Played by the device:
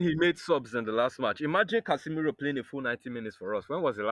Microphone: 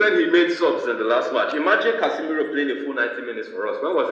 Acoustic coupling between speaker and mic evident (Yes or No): Yes